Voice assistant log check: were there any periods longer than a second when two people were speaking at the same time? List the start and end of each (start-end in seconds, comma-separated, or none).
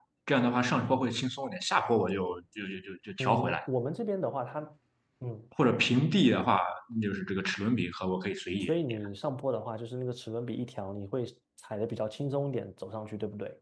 none